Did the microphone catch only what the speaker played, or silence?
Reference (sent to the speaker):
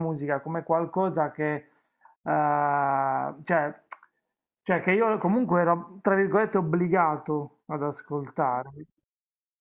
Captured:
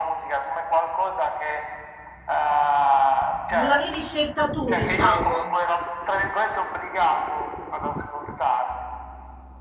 No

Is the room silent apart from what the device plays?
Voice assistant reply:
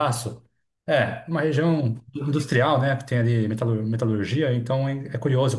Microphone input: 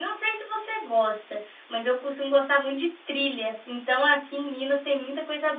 No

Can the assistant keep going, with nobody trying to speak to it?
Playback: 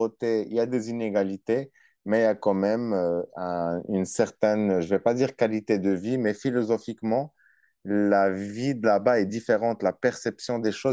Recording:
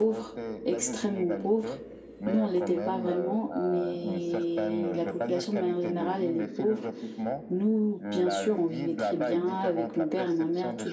No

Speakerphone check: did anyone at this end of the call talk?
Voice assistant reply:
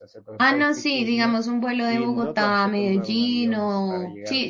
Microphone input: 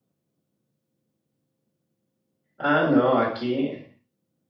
Yes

